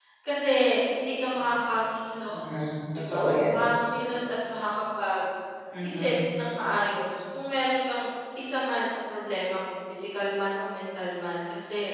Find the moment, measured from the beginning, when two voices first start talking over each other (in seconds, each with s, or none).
2.3 s